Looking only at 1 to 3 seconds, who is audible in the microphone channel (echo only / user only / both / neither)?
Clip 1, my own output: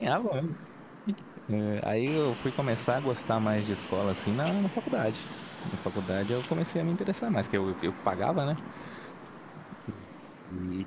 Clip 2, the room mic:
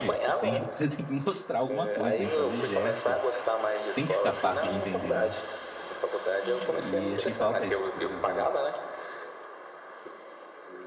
both